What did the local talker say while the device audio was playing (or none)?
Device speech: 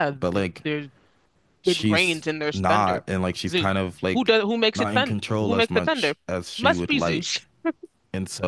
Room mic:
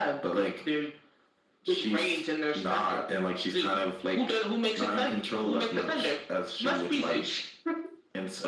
none